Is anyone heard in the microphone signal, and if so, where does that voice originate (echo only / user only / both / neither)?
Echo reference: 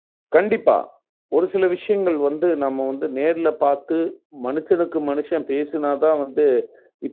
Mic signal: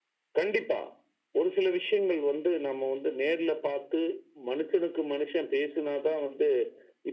echo only